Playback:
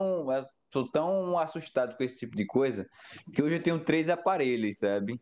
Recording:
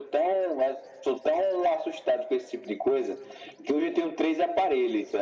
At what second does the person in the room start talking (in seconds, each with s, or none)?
none